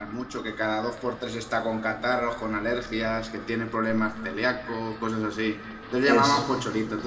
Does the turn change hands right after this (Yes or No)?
No